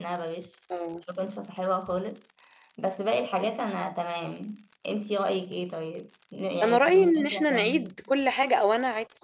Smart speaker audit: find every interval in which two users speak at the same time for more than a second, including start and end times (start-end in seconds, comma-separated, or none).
6.6-7.9